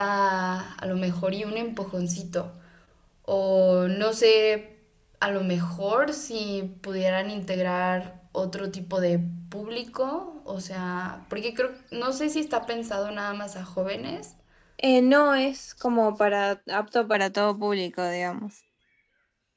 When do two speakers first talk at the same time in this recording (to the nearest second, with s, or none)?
none